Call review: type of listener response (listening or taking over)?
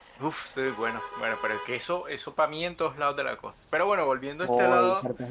taking over